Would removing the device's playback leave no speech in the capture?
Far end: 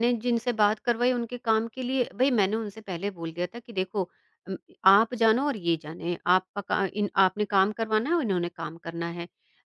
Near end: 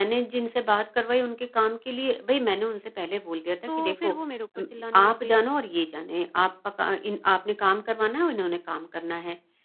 No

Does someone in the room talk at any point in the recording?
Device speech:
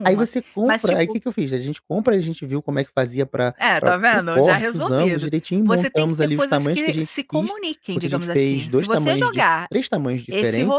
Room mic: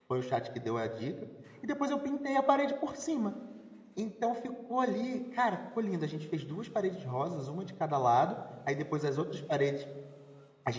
Yes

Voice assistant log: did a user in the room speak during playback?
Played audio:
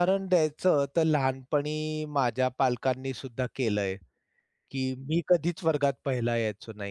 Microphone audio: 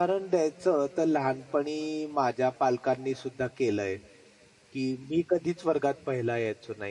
No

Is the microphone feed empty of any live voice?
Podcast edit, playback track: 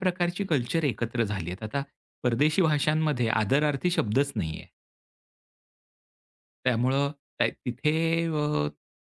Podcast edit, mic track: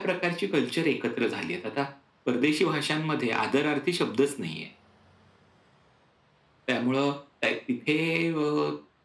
Yes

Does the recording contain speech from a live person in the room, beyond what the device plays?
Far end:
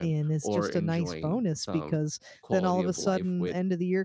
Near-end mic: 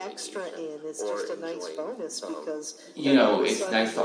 Yes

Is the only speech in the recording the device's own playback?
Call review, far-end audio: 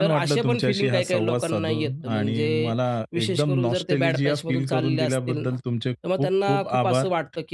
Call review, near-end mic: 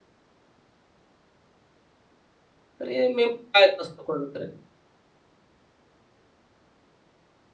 No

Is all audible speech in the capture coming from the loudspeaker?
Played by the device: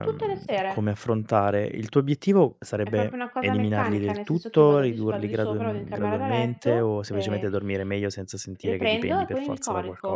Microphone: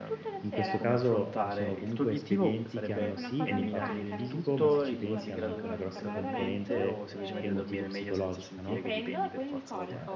No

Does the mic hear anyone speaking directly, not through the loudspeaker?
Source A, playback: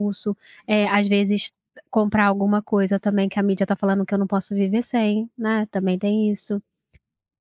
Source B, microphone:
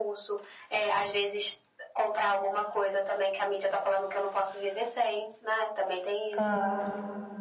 Yes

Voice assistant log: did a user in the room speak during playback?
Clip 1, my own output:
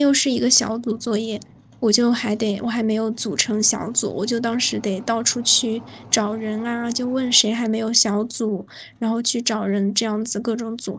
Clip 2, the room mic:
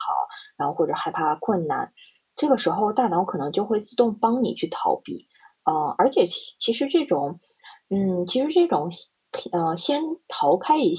Yes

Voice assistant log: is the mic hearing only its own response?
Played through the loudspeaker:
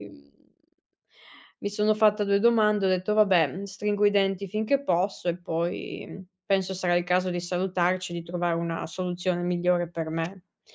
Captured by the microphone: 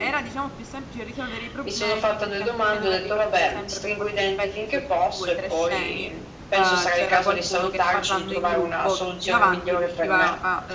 No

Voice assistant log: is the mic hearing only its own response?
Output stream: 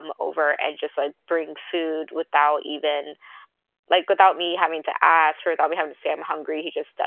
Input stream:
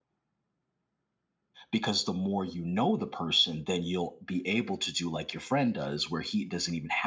No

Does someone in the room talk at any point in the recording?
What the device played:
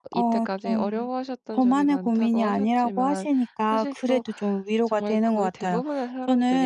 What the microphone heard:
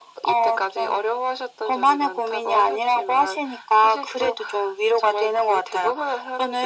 No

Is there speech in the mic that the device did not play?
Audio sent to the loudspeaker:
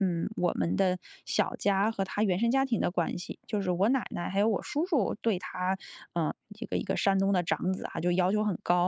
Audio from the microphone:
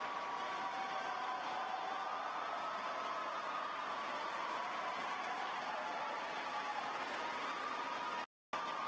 No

